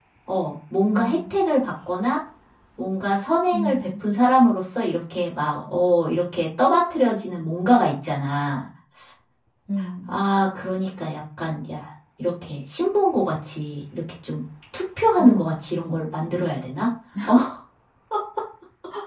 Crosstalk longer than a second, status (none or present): none